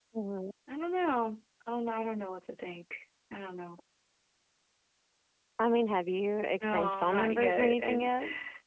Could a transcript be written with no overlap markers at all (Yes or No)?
No